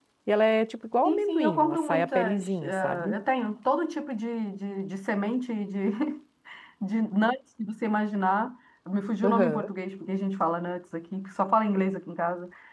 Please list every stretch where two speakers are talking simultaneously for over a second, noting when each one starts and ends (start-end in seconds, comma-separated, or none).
1.0-3.1